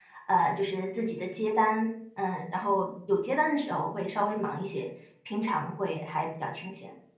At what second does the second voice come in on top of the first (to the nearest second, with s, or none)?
none